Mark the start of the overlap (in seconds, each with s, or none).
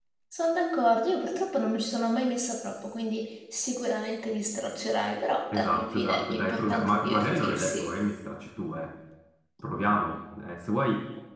5.5 s